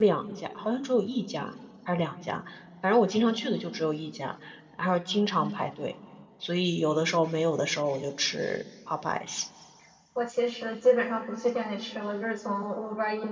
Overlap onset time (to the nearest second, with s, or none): none